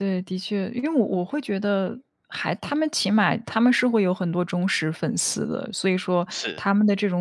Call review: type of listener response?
listening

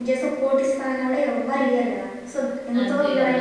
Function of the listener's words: listening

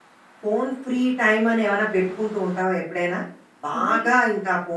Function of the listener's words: listening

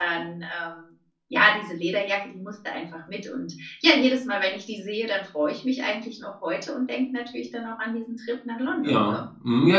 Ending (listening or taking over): taking over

